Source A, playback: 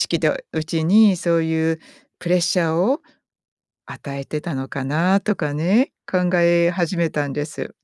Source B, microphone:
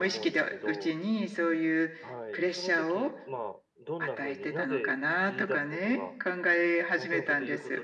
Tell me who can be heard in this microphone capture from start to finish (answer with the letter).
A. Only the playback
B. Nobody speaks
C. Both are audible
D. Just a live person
C